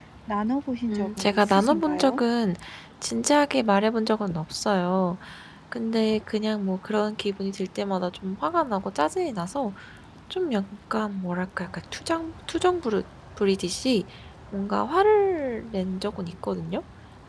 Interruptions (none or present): present